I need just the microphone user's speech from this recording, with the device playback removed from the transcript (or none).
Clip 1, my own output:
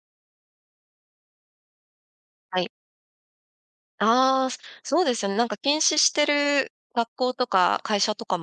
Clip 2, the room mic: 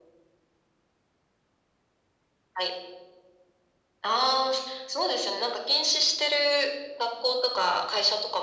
none